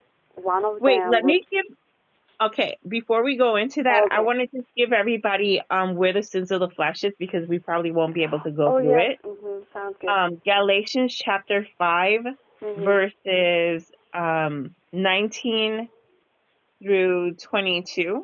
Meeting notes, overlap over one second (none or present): none